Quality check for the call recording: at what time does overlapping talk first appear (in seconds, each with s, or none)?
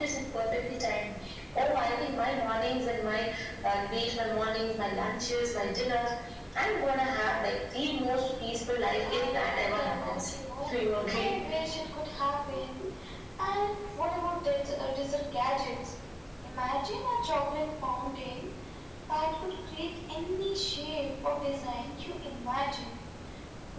9.1 s